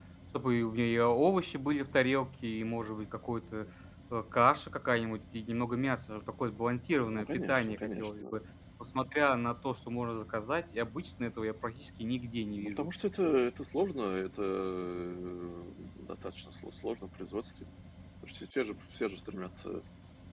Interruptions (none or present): present